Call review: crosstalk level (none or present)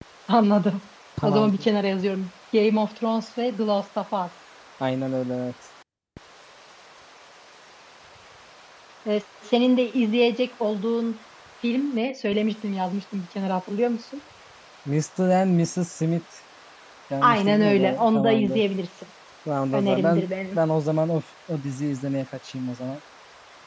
present